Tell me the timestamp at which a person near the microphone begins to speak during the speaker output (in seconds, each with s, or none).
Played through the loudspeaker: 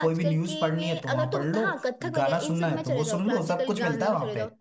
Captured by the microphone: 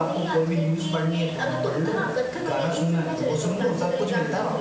none